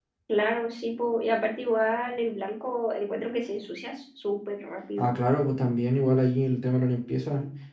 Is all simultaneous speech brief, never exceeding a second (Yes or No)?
Yes